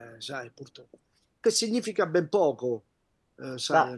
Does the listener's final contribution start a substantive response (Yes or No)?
No